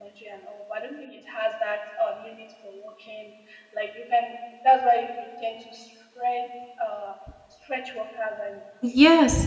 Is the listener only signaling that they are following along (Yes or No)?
No